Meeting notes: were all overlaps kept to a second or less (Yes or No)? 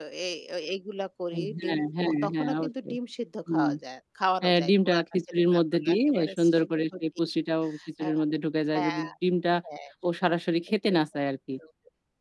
No